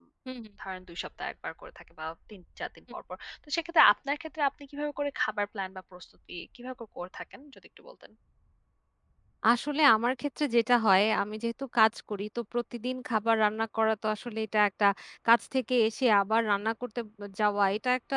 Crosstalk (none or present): none